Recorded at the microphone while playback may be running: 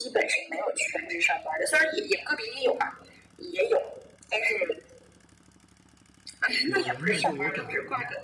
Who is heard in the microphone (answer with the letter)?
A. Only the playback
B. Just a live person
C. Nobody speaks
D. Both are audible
D